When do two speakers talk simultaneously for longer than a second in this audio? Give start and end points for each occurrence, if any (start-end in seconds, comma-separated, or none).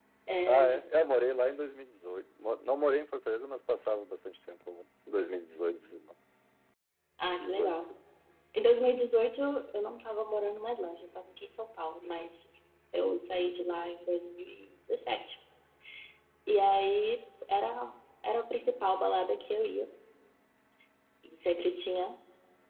none